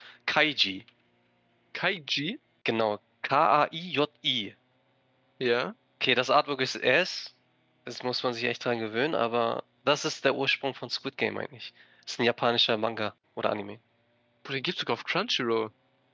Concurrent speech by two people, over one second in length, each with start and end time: none

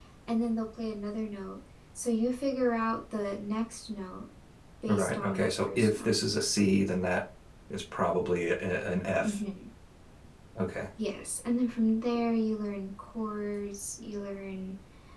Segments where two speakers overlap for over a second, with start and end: 4.9-6.1

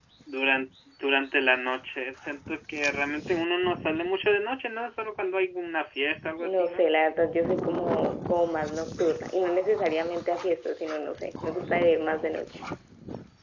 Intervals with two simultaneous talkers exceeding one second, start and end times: none

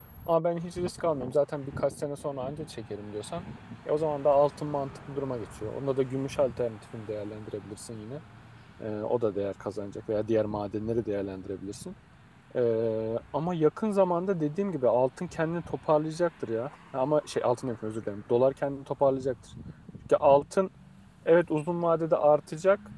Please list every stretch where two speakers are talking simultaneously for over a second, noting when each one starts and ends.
none

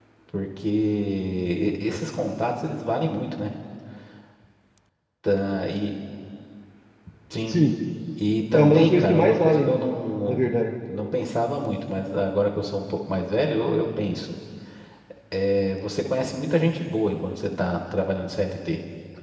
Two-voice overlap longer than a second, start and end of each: 8.5-9.8

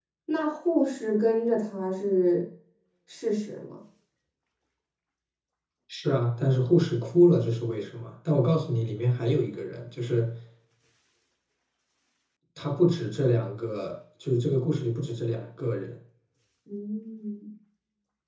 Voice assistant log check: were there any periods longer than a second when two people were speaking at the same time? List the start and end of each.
none

